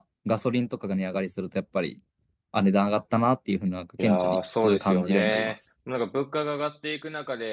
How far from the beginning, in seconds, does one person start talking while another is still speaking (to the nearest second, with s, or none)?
4 s